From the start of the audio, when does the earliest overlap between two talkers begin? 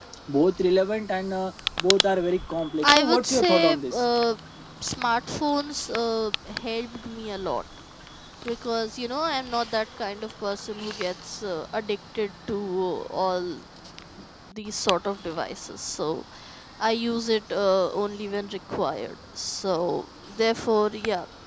2.8 s

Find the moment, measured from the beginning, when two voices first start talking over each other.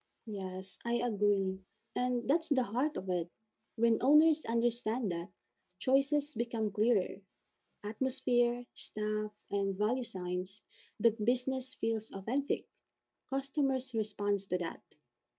none

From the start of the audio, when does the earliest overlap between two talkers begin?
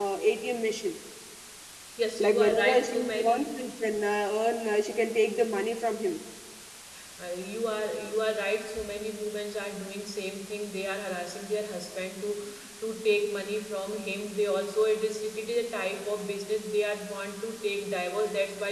2.2 s

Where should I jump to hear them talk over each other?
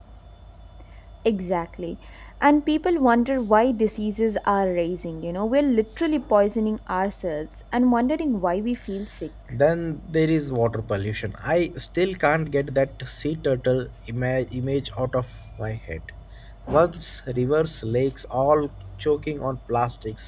none

